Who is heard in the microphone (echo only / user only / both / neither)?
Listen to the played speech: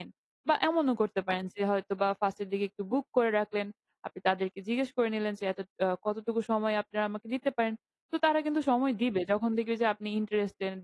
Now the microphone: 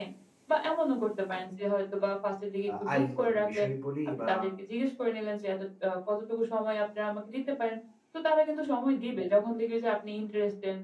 both